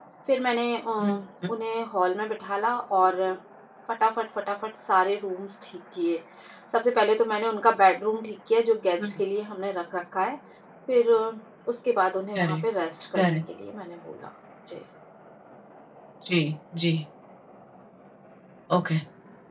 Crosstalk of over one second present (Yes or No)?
No